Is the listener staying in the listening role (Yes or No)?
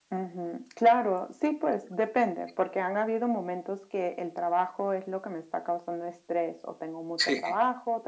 Yes